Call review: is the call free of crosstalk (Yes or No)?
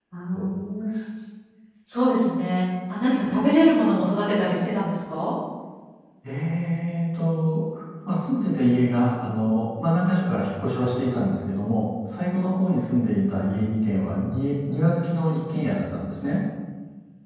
Yes